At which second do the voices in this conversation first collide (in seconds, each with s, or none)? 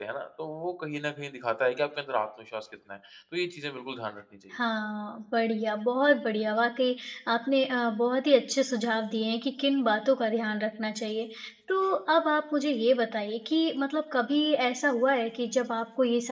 none